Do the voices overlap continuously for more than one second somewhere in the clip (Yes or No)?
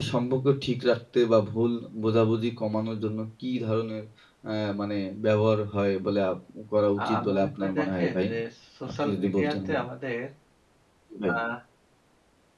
Yes